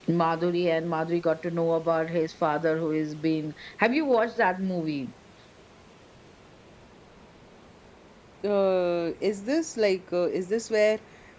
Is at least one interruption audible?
No

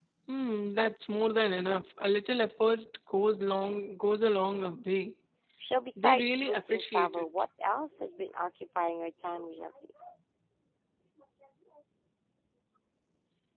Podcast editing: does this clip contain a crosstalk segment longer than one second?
Yes, from 6.0 s

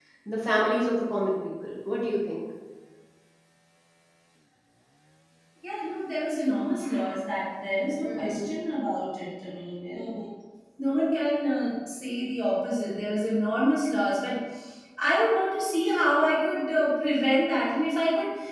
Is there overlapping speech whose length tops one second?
No

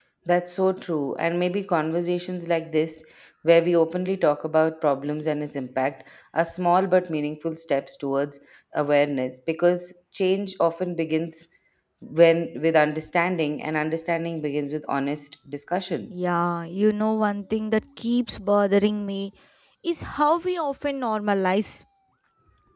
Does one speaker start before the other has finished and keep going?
No

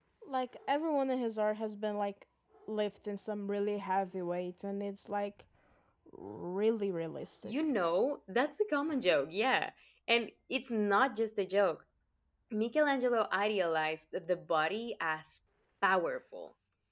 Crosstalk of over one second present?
No

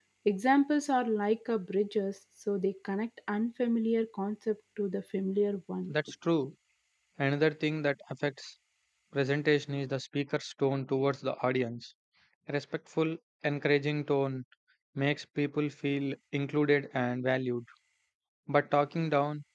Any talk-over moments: No

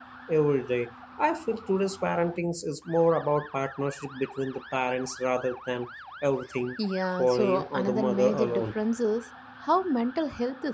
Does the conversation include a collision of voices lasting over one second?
Yes, from 7.2 s

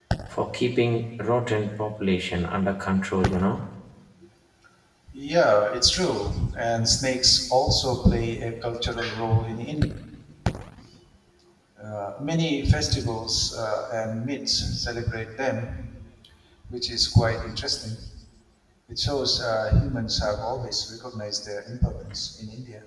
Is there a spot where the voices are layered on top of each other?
No

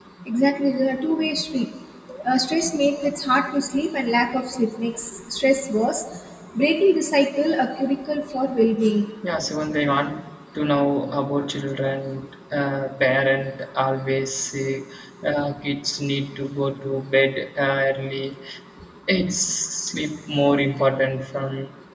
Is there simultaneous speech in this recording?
No

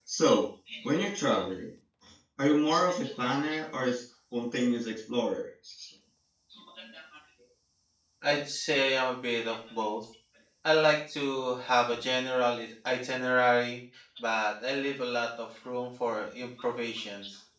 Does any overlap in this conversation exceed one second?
No

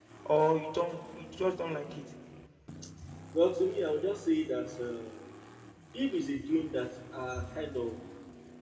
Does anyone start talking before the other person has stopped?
No

